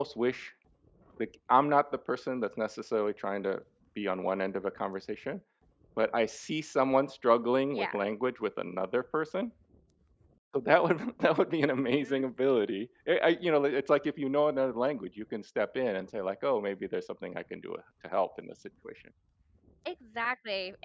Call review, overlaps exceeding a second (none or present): none